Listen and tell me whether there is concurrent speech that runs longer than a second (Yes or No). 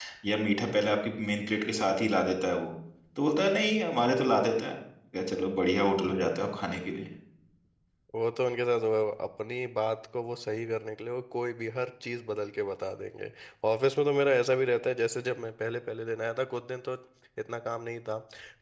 No